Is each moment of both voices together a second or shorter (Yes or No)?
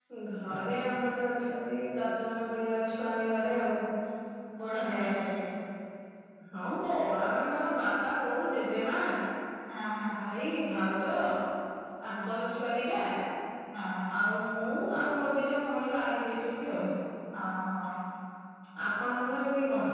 Yes